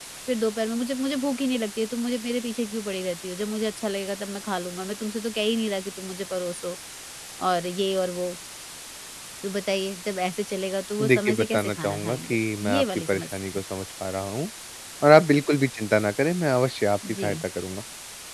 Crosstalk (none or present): present